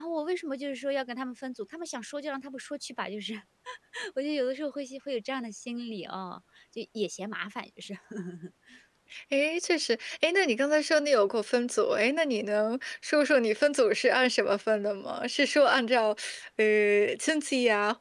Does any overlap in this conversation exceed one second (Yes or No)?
No